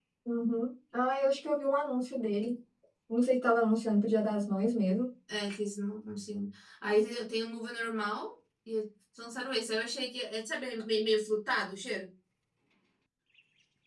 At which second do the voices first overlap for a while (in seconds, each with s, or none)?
none